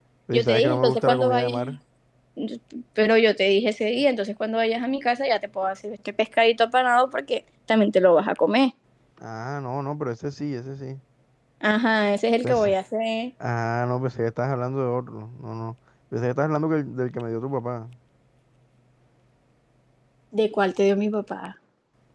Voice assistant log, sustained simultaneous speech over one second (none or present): present